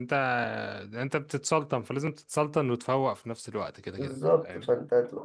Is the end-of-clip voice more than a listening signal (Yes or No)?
Yes